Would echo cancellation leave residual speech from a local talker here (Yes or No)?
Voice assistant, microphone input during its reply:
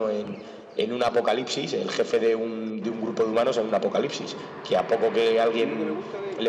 Yes